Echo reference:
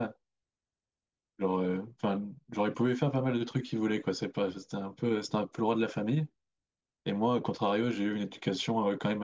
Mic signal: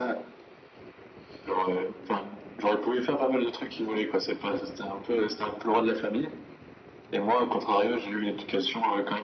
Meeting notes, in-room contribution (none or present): none